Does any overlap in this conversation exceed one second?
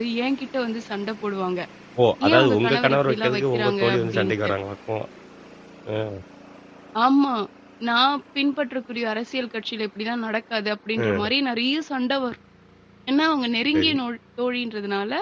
Yes, from 2.3 s

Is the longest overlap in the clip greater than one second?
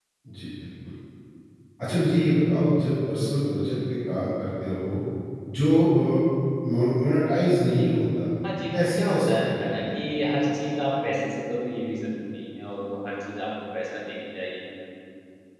Yes, from 8.7 s

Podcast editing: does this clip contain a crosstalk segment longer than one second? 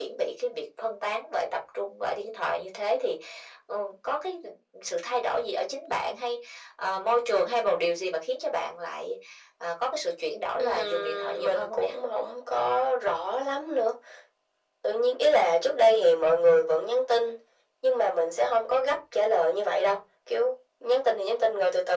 Yes, from 10.6 s

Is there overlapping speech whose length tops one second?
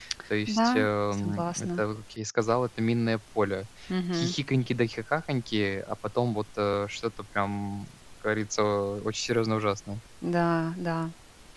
Yes, from 0.6 s

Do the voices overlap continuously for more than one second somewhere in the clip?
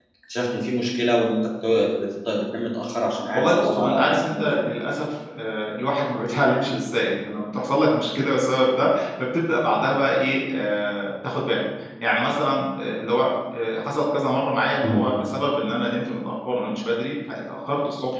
Yes, from 3.3 s

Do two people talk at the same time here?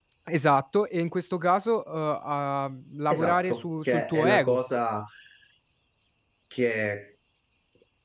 Yes, from 3.1 s

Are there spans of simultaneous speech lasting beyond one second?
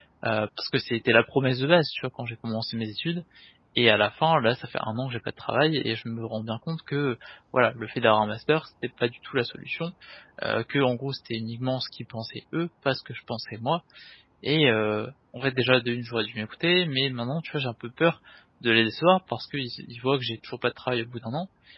No

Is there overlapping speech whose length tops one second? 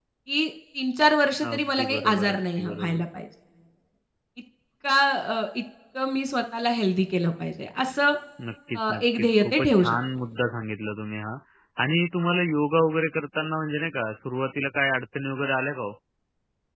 Yes, from 1.5 s

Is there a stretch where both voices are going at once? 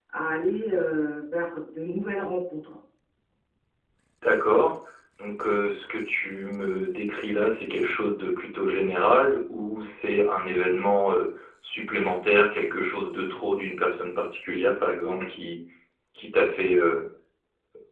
No

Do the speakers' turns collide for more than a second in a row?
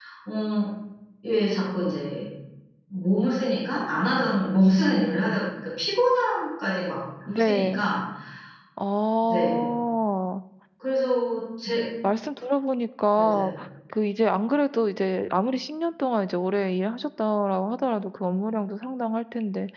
No

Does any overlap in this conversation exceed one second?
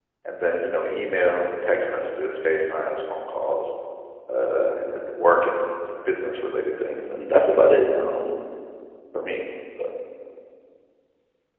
No

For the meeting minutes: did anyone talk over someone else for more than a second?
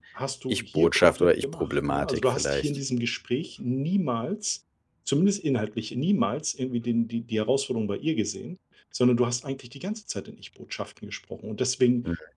Yes, from 0.5 s

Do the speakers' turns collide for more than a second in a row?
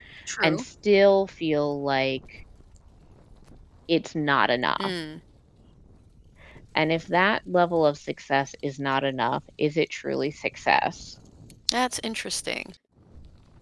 No

